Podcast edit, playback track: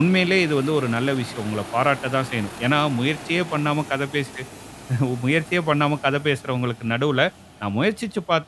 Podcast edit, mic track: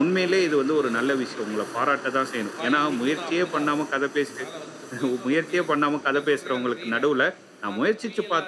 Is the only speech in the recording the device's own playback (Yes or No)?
No